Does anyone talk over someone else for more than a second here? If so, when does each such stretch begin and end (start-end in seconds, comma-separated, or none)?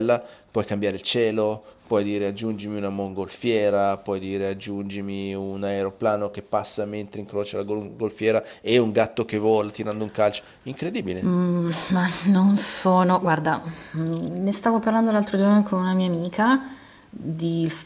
none